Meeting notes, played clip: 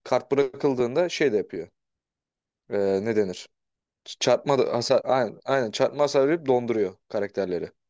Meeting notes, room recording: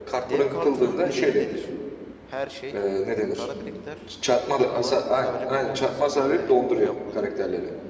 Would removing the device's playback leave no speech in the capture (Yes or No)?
No